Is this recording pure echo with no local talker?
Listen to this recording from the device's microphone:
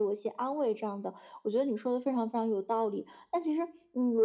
Yes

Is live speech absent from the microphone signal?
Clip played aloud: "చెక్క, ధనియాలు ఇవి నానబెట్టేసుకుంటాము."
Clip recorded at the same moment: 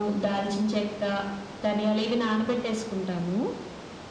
Yes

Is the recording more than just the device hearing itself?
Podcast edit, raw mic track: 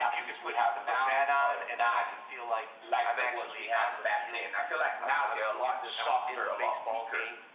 No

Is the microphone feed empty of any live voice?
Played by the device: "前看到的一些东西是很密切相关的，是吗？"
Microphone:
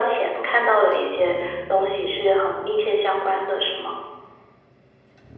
Yes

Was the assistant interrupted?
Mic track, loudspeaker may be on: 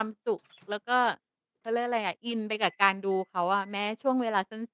Yes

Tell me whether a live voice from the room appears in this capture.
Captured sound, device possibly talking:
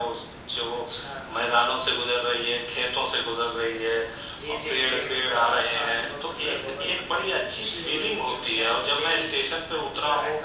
No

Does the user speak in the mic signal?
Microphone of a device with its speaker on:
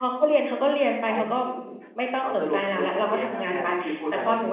Yes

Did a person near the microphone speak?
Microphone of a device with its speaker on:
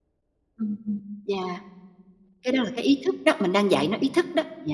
Yes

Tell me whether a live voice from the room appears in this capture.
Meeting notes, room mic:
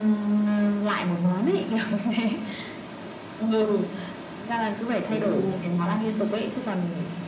Yes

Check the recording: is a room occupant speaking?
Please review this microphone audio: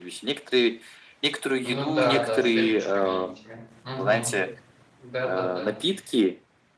Yes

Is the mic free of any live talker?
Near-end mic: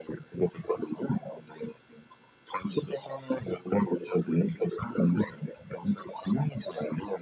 Yes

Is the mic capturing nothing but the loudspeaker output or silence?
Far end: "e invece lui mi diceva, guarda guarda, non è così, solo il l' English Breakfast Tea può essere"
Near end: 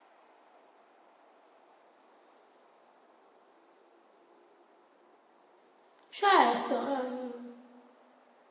No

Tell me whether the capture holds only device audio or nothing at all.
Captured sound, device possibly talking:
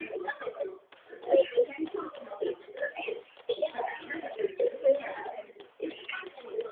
Yes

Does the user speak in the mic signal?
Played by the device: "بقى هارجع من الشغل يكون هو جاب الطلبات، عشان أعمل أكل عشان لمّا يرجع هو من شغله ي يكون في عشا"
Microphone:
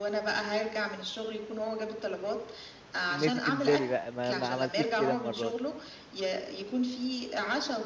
Yes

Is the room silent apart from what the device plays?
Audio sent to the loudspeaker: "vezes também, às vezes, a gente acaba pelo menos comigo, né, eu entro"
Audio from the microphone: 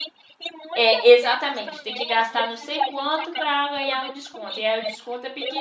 No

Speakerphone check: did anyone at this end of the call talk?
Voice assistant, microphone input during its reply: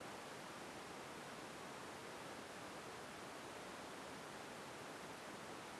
No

